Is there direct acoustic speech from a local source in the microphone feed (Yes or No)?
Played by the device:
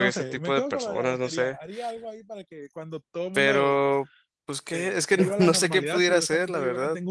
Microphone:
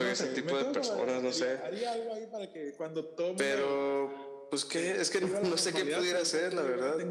No